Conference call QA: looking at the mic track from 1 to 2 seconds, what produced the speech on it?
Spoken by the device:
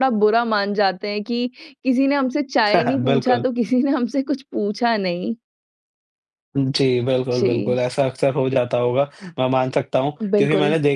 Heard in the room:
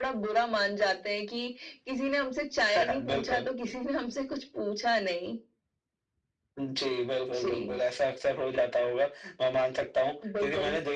echo only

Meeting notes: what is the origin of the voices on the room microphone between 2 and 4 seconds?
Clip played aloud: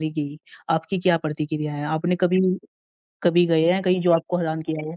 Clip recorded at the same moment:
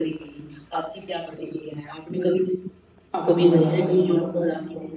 both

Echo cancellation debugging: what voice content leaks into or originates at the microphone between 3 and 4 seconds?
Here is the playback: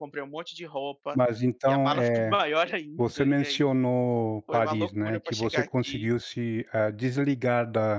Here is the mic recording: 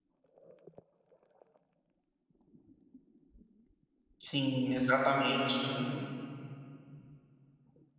neither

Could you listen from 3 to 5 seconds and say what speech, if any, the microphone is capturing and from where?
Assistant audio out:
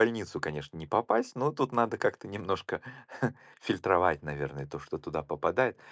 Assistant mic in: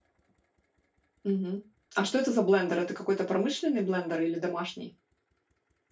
user only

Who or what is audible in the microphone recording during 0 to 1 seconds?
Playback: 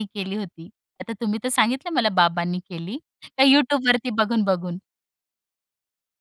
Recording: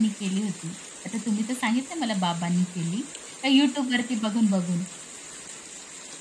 echo only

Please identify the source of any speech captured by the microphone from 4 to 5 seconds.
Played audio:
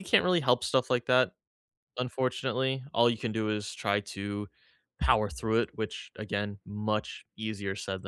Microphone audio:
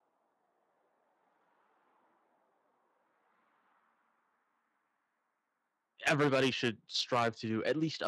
neither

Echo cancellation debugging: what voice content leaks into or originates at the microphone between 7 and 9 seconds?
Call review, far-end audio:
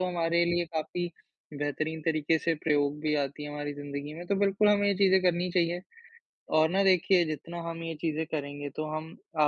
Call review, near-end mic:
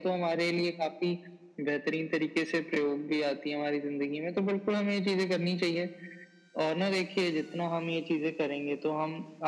echo only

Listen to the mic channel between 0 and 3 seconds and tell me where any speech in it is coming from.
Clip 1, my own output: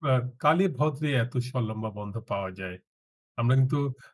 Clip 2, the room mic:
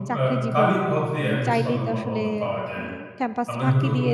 both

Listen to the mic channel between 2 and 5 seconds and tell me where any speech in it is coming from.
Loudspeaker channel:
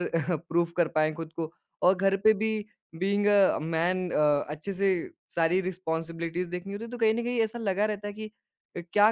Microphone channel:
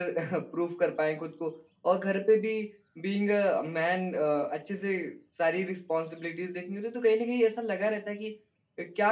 echo only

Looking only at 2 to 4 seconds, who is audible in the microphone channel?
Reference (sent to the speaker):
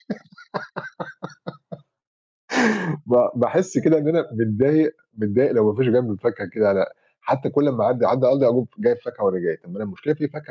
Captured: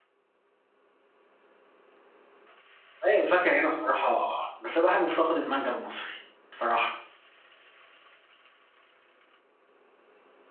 user only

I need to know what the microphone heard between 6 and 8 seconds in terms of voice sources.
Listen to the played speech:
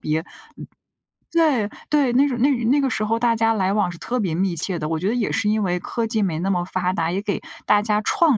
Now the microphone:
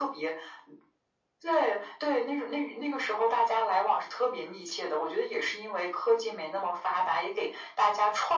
echo only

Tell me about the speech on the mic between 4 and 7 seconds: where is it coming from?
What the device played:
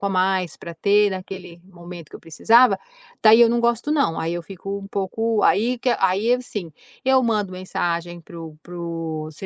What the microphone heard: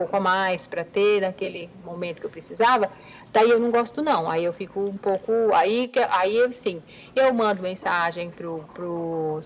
echo only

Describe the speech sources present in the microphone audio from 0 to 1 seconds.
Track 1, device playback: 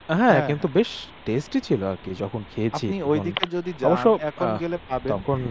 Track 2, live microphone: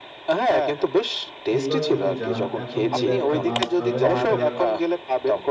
echo only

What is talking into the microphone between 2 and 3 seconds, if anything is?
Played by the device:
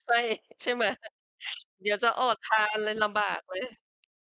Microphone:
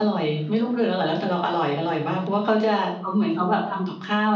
user only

